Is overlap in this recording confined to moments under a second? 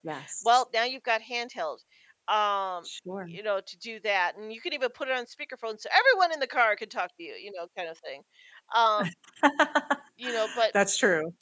Yes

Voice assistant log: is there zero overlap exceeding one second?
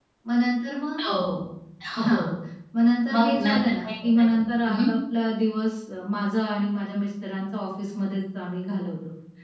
No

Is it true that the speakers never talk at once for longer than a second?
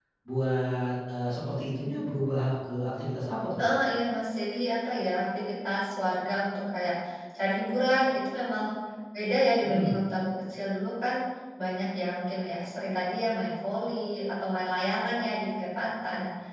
Yes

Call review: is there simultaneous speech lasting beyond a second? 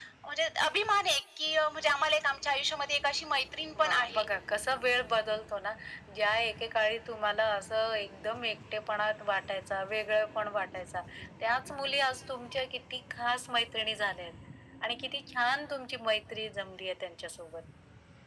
No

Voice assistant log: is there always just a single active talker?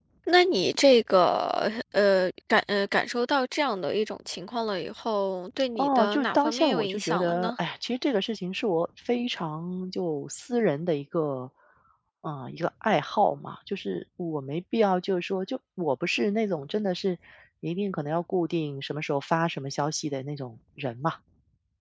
No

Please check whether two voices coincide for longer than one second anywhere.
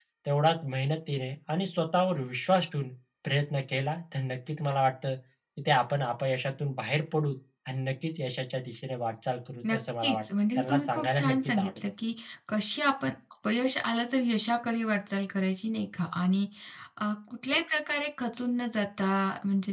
Yes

